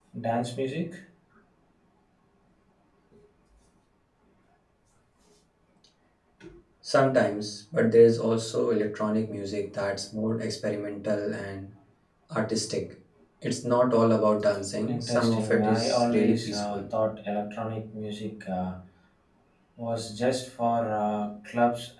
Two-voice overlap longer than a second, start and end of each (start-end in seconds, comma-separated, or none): 14.9-16.8